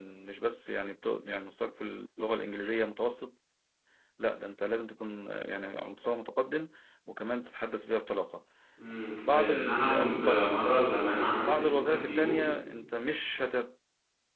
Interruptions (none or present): present